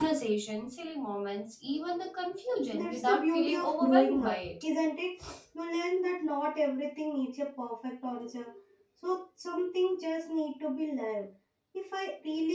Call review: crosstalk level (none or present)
present